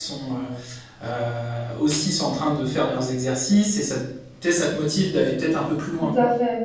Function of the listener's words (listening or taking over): taking over